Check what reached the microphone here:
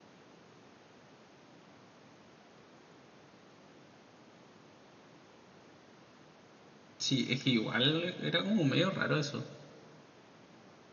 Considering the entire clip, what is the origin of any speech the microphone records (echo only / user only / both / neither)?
user only